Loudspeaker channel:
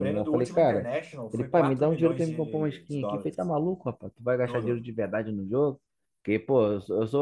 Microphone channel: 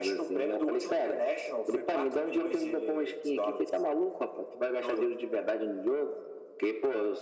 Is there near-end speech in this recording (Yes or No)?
No